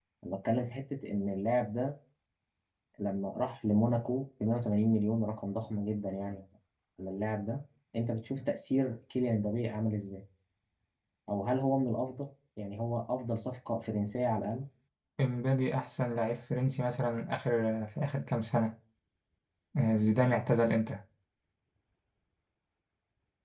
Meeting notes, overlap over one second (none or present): none